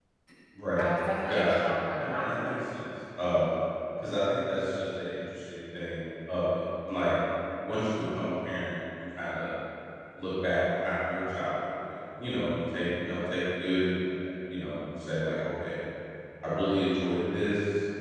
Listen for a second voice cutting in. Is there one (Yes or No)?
Yes